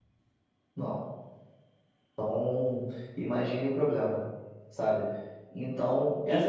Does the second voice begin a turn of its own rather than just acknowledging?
Yes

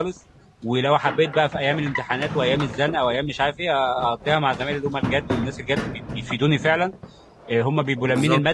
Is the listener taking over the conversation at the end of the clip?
No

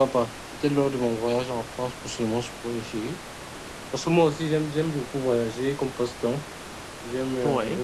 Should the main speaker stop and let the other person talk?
No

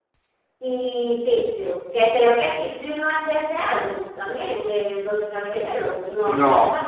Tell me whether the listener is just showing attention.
No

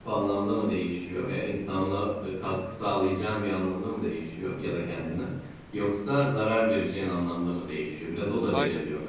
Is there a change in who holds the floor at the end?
No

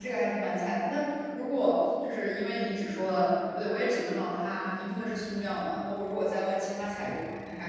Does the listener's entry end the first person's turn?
No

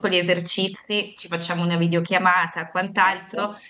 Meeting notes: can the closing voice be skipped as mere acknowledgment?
Yes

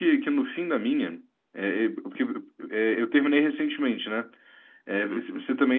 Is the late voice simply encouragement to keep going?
Yes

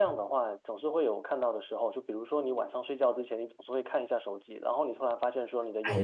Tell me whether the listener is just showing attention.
No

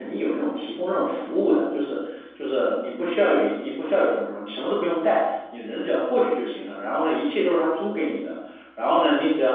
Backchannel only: Yes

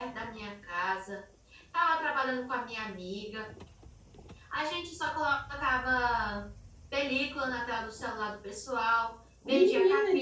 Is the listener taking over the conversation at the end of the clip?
Yes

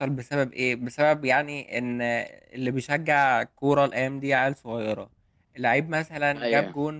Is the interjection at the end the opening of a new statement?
No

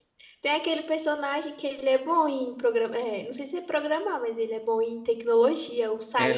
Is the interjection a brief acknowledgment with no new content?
No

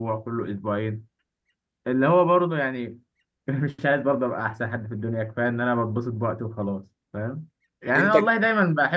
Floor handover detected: No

